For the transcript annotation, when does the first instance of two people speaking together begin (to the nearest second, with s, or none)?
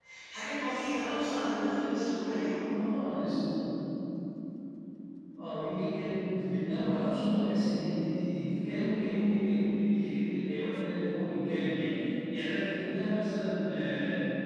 none